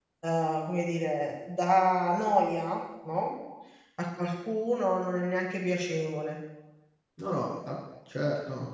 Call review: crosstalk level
none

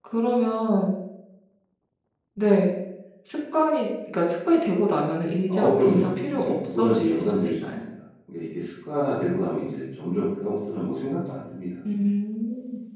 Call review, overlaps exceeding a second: present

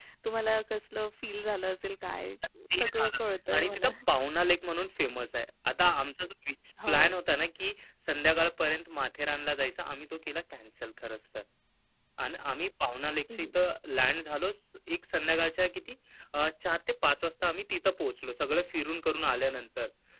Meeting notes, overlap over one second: none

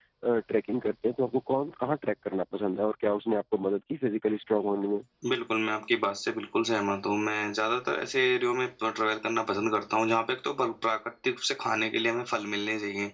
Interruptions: none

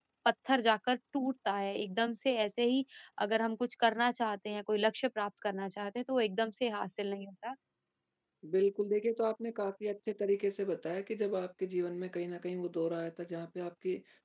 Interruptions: none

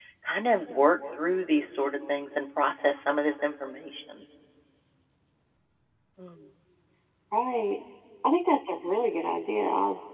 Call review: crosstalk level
none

